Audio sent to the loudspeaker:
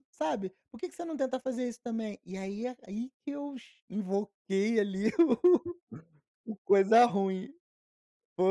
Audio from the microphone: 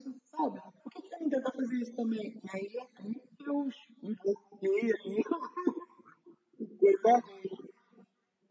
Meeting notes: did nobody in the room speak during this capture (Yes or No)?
Yes